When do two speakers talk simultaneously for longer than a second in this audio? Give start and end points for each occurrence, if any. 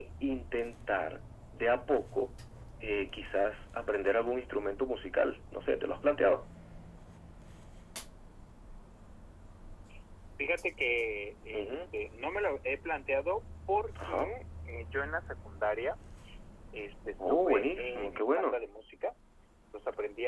17.3-18.6

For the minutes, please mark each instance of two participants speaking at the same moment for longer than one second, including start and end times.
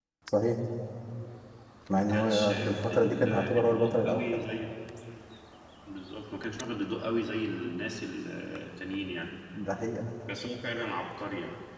1.9-4.4

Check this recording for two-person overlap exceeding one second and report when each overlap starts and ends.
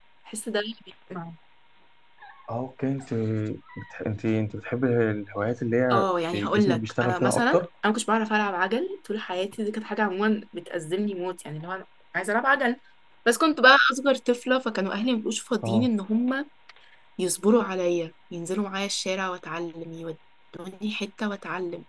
5.9-7.6

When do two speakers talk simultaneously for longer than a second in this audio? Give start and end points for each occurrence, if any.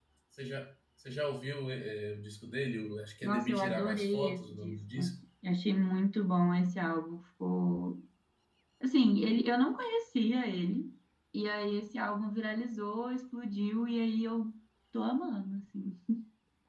3.2-5.0

